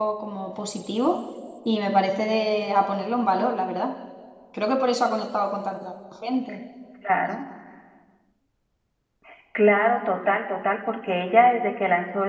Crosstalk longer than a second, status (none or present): none